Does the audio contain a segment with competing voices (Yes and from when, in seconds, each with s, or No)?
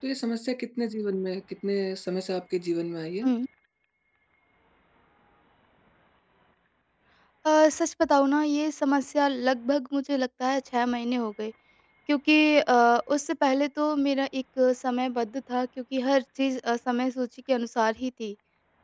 No